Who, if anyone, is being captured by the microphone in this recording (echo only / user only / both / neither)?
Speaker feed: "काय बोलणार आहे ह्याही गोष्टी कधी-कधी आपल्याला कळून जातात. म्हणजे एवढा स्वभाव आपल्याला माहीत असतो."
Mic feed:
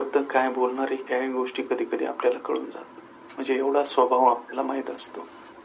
echo only